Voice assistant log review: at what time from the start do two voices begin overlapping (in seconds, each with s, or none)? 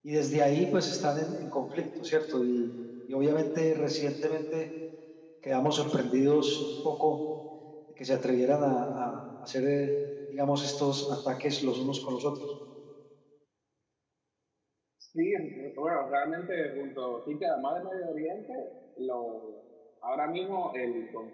none